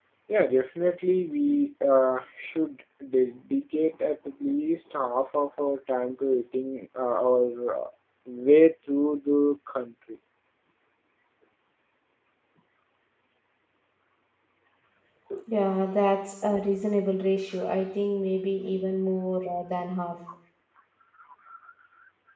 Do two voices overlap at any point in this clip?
No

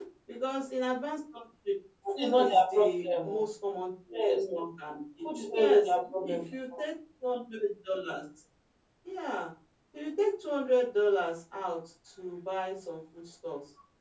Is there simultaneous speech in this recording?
Yes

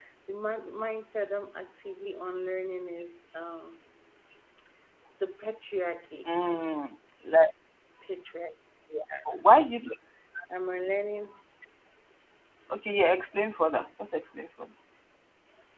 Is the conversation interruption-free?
Yes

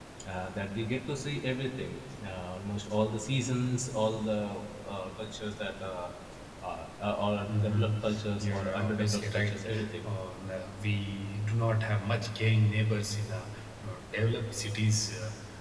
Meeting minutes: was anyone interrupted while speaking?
Yes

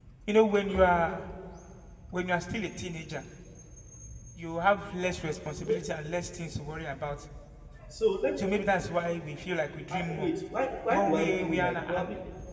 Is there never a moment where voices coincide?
No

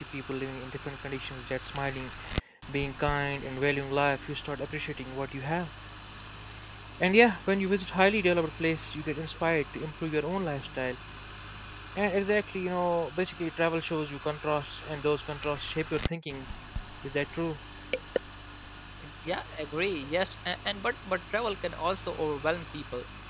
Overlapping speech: No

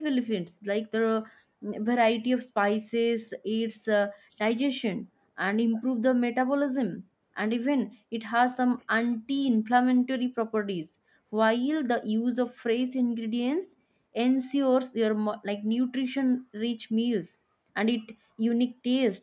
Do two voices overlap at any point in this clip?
No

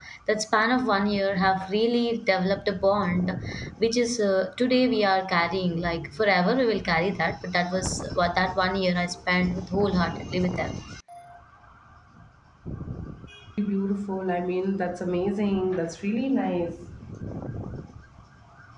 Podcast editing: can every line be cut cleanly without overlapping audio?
Yes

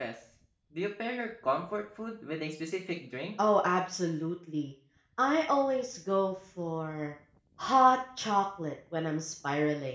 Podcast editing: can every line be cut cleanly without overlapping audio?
Yes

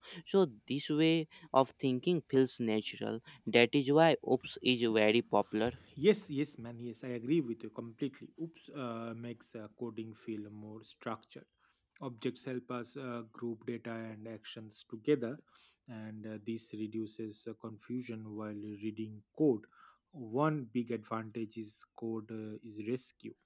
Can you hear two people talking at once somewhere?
No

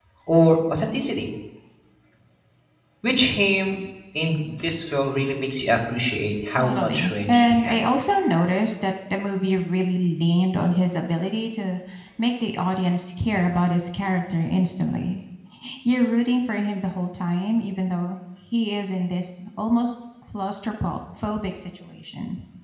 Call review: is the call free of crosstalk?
No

